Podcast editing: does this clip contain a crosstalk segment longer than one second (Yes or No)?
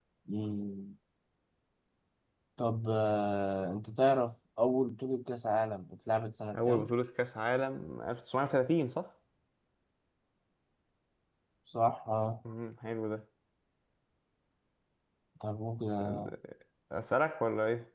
No